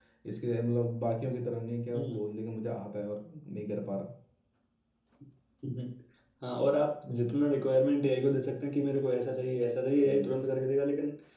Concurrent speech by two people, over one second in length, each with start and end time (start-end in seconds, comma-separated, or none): none